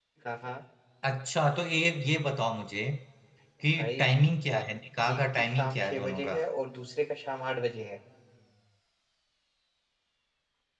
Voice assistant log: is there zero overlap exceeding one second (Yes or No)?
No